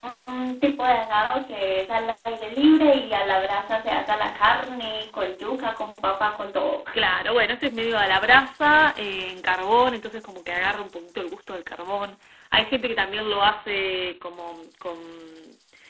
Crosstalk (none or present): none